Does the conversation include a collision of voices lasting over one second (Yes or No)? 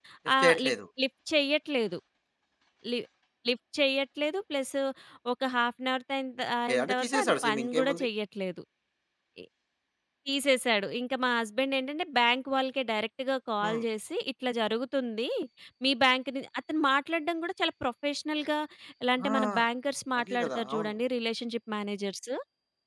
Yes